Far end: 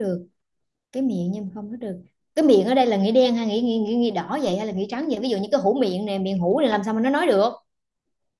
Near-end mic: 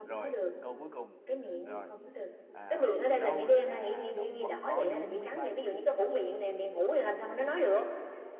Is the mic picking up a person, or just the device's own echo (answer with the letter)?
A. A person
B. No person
A